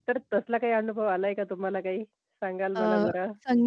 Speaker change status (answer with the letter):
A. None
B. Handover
B